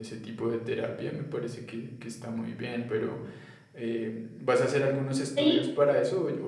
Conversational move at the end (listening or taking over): listening